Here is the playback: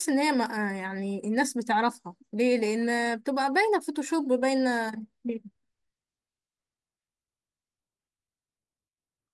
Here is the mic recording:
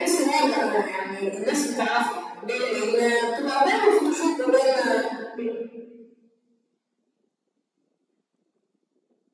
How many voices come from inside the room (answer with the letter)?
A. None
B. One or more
A